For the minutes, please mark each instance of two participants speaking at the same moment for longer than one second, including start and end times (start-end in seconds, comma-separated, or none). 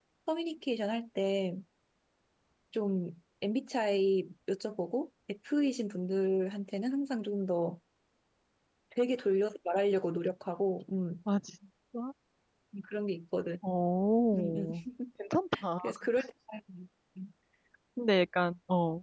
none